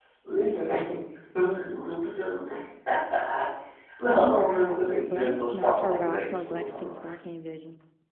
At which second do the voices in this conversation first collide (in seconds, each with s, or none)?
4.1 s